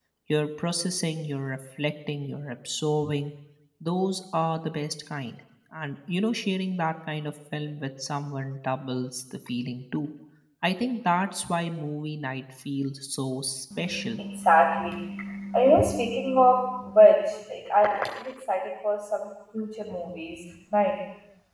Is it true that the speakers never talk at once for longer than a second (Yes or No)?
Yes